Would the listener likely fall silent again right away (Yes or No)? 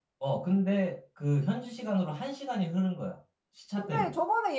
No